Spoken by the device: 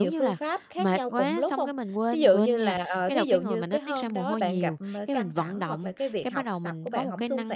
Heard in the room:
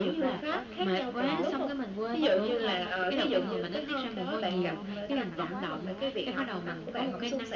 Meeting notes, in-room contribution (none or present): present